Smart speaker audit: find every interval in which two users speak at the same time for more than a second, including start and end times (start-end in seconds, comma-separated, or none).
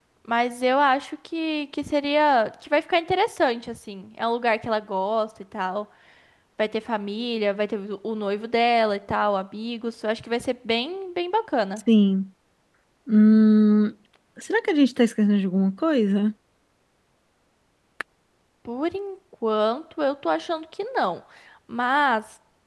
none